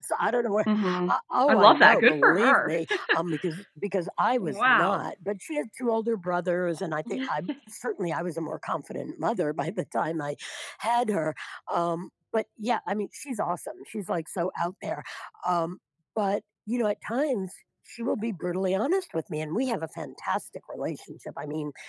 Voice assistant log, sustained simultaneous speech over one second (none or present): present